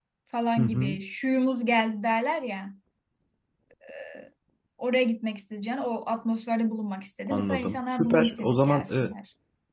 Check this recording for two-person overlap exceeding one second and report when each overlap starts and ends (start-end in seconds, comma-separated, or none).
7.3-9.1